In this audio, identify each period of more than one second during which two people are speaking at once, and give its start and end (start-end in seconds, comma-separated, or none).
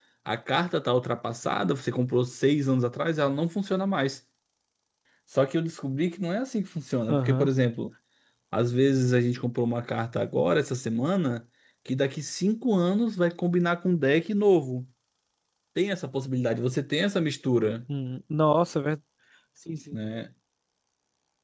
none